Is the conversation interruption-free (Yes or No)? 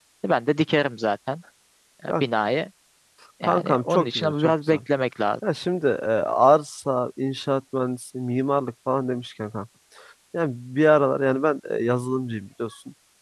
No